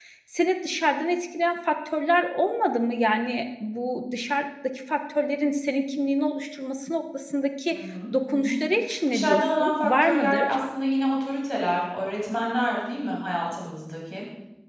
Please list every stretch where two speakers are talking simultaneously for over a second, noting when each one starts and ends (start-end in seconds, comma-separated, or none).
9.1-10.4